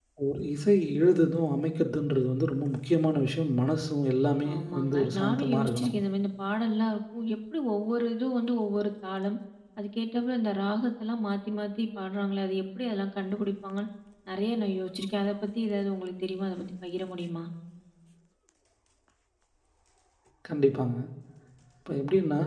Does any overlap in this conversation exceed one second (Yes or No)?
Yes